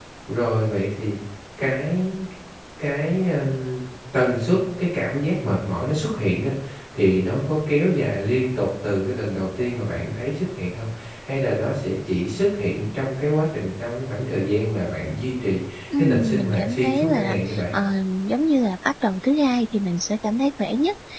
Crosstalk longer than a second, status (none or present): present